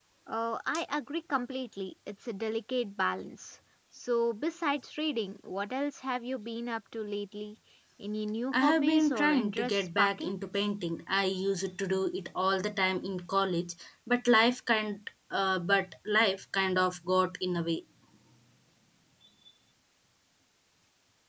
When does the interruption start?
8.5 s

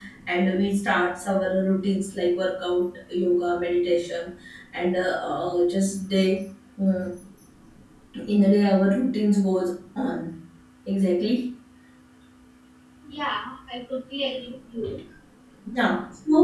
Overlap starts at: none

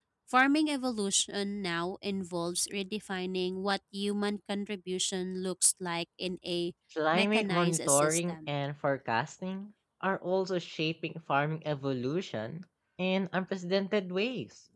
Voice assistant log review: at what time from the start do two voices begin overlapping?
7.1 s

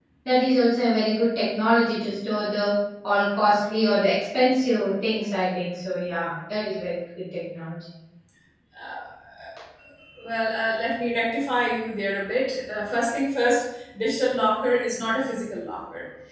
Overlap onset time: none

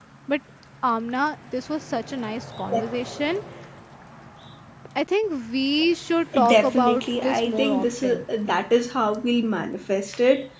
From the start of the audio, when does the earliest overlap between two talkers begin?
6.3 s

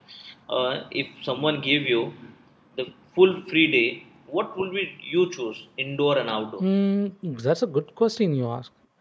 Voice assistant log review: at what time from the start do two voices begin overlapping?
none

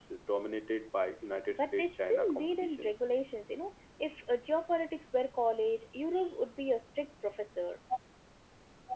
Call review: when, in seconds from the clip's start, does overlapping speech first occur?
1.5 s

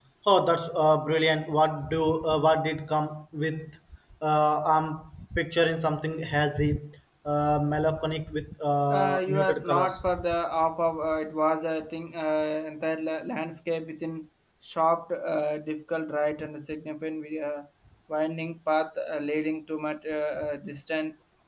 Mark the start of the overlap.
8.9 s

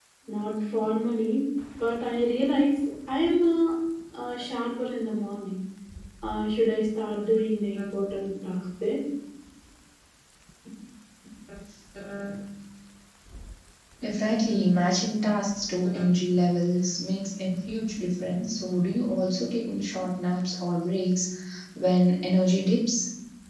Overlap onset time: none

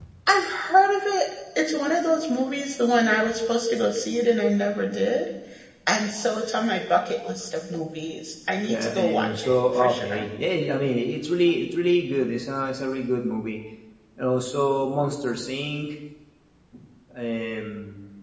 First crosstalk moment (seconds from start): 8.7 s

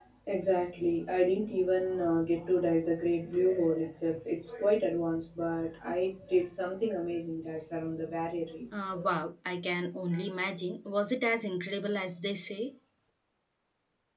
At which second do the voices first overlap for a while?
none

